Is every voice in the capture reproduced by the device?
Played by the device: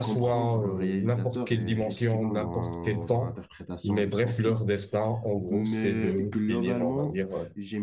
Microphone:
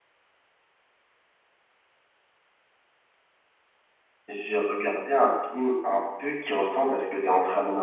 No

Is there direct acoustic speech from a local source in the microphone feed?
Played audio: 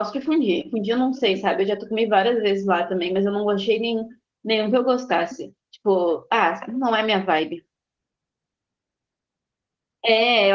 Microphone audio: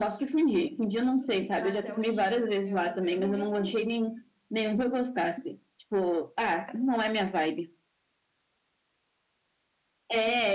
Yes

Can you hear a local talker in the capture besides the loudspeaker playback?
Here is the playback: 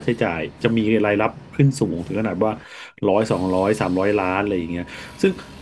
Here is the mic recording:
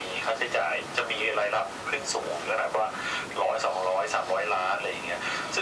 No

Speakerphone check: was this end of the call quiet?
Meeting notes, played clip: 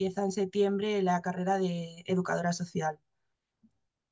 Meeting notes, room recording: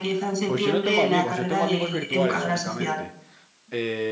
No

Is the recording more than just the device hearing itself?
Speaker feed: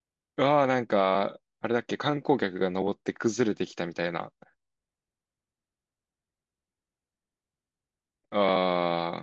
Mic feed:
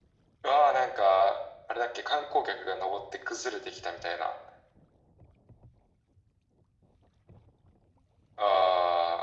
No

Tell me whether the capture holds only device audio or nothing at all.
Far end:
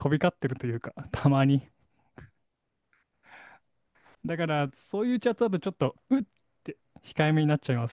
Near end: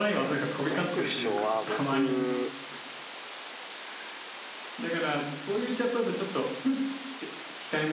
No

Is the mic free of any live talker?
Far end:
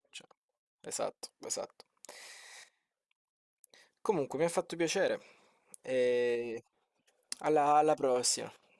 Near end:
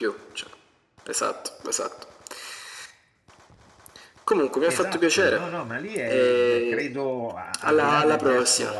No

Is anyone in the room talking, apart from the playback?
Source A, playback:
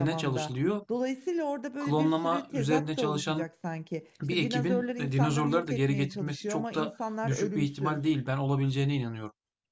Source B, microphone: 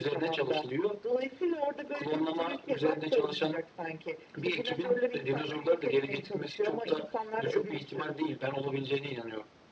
No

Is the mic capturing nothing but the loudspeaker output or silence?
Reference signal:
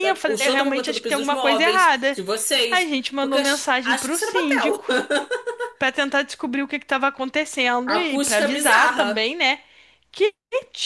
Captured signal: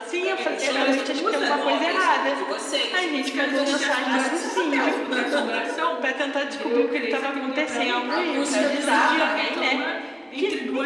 No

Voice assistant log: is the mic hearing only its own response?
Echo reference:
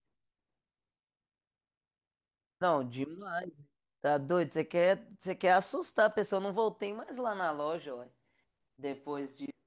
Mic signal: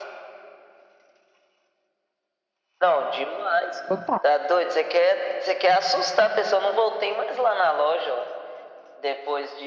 No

